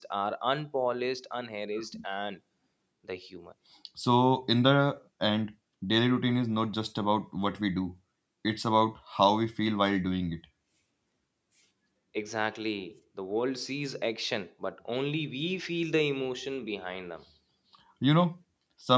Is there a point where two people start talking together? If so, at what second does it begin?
none

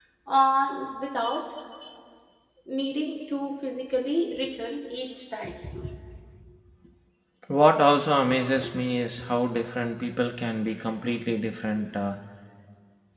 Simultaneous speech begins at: none

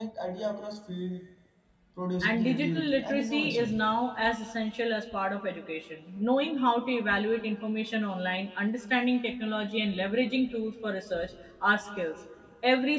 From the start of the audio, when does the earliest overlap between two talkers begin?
2.2 s

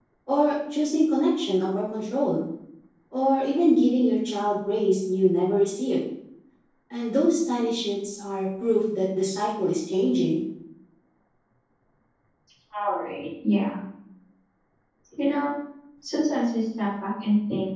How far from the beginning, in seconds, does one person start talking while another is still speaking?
none

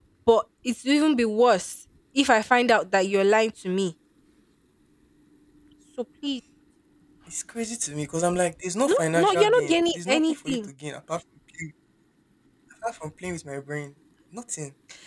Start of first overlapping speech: 8.9 s

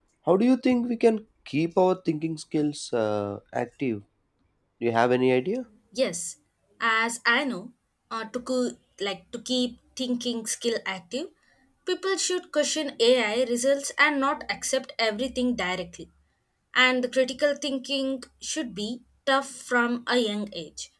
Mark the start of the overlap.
none

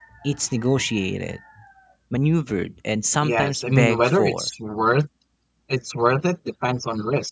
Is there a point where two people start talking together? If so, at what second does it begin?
3.2 s

